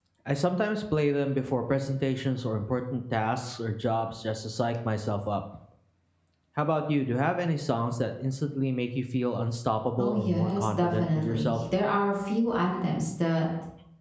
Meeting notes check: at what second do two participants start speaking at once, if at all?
10 s

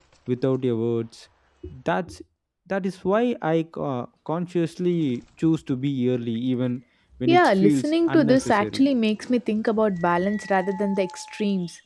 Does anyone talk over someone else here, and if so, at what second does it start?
7 s

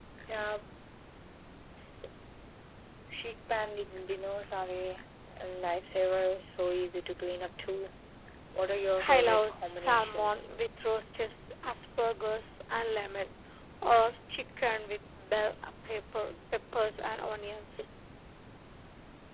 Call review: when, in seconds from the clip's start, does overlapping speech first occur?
9 s

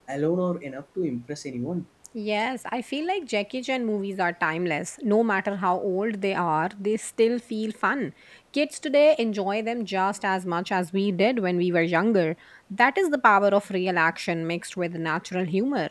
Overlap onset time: none

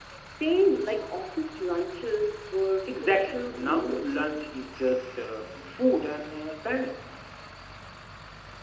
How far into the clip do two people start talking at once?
3 s

